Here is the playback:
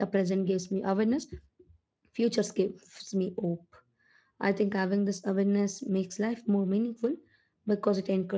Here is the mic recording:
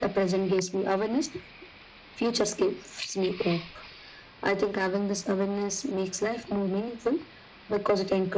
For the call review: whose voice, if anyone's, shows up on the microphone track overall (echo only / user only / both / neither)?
echo only